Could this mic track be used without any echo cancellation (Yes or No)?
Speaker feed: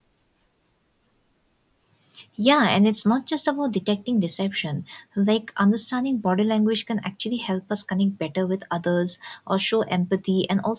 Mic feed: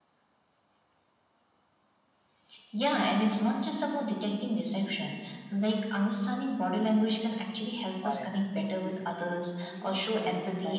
No